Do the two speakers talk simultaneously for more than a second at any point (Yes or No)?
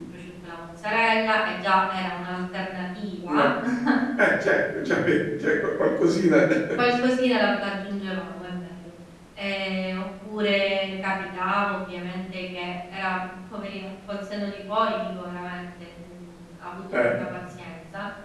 No